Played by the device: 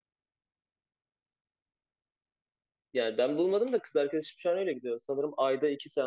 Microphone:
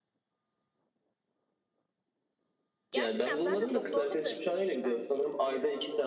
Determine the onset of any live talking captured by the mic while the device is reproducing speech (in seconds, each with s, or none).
2.9 s